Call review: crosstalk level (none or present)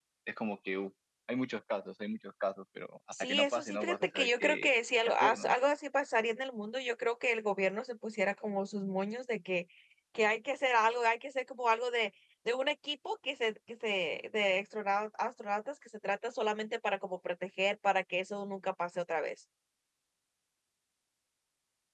present